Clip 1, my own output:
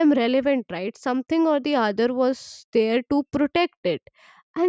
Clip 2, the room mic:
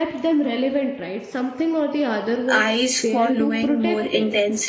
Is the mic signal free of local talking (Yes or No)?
No